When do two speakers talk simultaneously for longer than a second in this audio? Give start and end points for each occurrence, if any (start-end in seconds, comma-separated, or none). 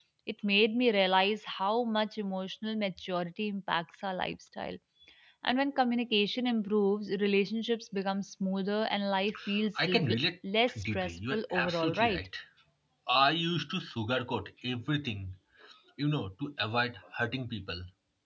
10.8-12.3